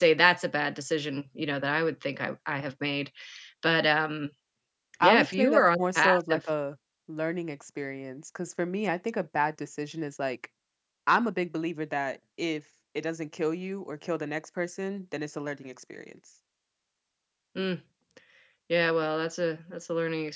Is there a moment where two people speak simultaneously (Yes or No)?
Yes